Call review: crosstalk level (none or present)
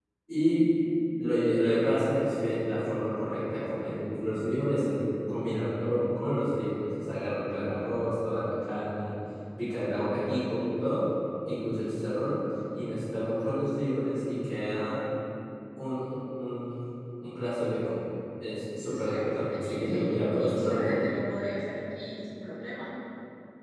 present